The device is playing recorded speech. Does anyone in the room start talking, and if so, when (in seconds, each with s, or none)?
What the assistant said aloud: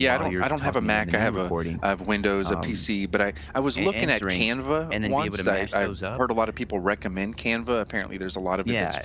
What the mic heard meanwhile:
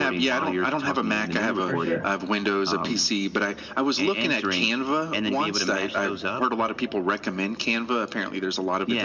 1.6 s